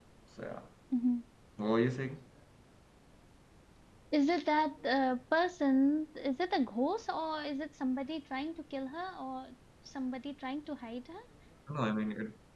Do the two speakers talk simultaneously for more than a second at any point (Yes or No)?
No